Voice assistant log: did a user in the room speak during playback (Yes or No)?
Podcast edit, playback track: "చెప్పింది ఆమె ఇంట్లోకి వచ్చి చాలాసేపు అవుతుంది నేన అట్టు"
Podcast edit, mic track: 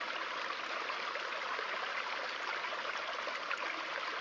No